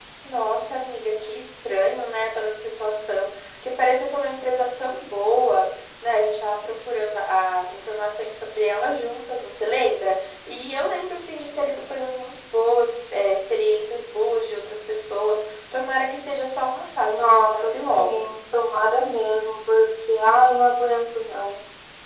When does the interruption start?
17 s

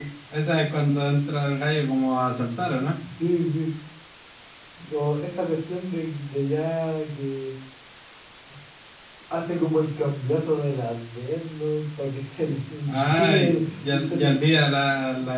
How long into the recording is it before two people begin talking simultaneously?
13 s

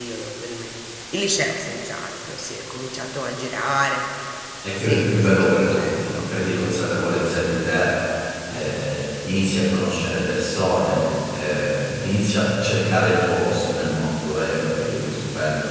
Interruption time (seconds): 5 s

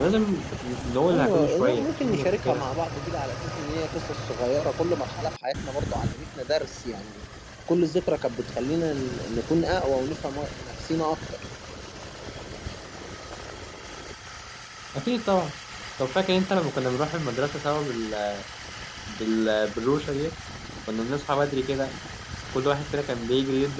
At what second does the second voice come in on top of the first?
1 s

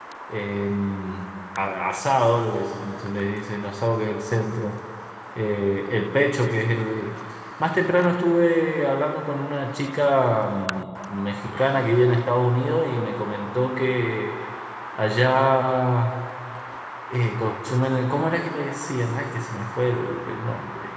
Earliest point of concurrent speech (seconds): none

